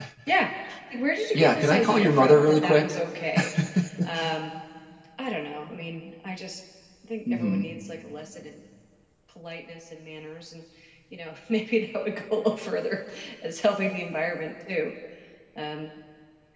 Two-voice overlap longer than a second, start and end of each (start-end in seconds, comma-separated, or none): 1.3-2.8